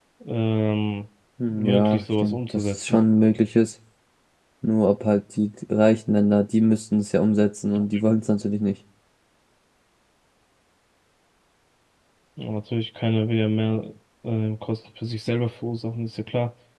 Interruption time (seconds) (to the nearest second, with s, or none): 1 s